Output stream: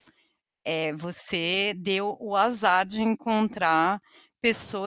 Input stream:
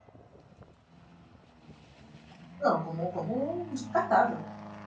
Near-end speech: present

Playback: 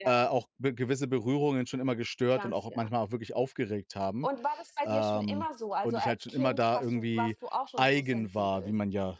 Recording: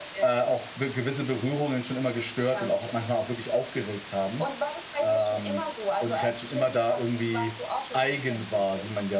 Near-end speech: none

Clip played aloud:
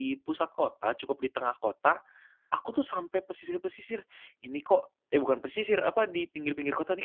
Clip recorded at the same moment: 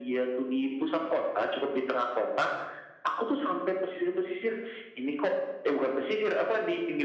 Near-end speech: none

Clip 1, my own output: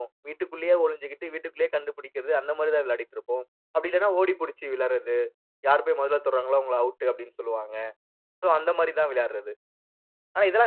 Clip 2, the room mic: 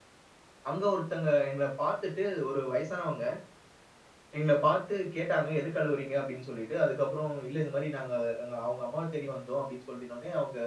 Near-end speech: present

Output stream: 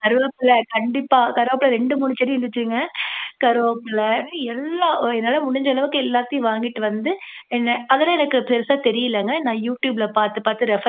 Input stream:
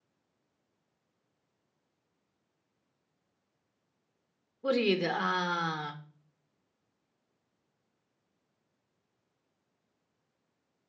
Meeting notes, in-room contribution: present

